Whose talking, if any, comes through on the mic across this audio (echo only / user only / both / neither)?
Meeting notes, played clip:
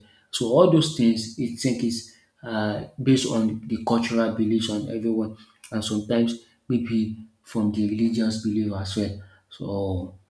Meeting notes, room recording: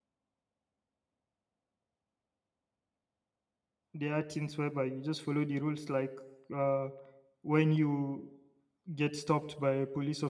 user only